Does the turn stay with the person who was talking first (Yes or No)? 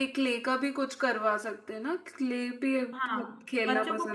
No